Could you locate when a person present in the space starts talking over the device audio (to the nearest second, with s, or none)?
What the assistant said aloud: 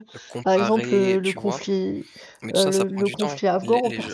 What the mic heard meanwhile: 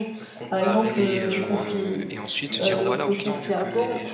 1 s